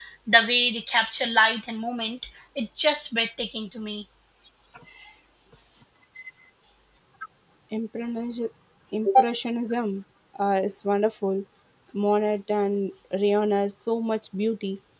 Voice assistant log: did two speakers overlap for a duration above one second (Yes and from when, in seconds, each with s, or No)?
No